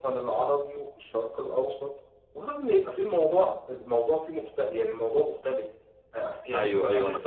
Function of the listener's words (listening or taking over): taking over